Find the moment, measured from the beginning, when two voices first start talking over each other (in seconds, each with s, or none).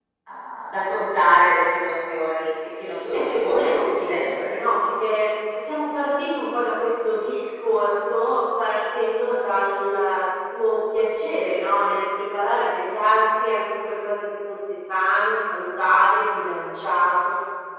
3.0 s